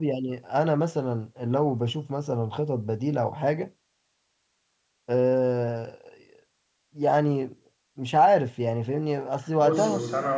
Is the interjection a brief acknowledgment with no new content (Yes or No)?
No